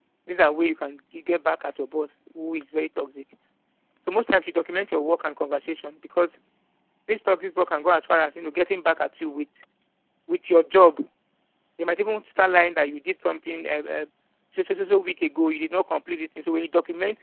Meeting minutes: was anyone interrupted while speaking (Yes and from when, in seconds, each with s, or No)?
No